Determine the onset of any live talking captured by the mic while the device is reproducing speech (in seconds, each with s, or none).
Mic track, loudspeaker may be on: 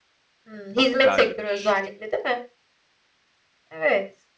0.8 s